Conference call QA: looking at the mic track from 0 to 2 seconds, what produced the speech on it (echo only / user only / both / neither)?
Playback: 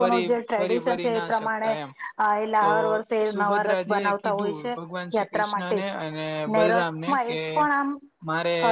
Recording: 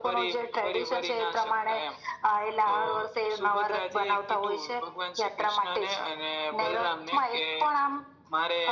echo only